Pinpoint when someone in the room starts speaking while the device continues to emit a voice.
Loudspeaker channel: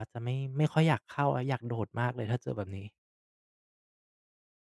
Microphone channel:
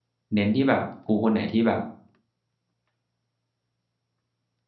0.3 s

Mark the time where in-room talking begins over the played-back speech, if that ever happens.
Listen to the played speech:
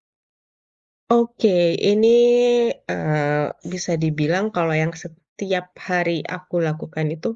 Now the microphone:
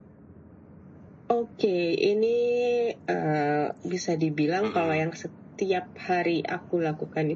4.6 s

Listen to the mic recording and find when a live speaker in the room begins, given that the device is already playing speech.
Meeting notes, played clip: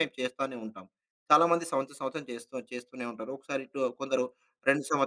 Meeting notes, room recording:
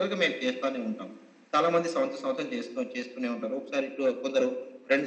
none

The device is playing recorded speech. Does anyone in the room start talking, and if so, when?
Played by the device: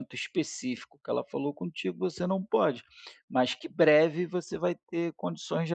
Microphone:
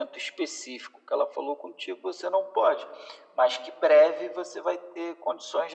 none

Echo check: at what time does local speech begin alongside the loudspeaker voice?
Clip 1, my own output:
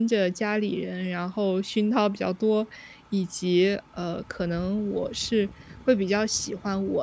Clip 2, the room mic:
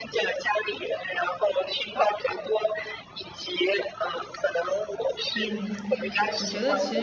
5.4 s

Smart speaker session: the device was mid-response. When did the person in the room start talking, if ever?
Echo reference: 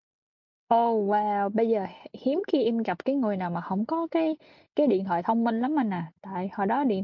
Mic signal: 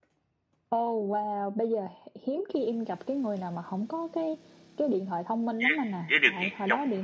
5.6 s

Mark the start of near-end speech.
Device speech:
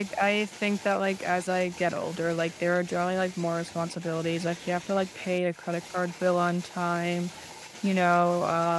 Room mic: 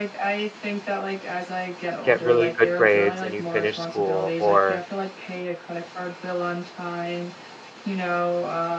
2.0 s

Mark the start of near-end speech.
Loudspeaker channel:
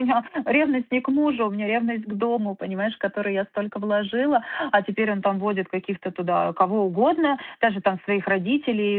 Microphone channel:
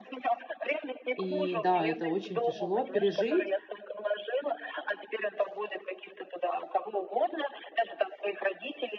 1.1 s

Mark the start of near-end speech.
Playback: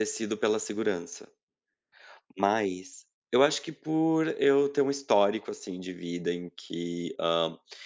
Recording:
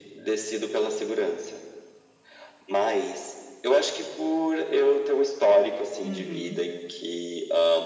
6.0 s

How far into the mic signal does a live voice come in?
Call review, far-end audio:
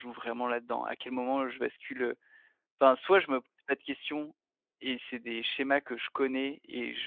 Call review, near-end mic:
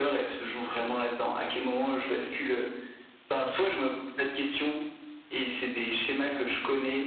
none

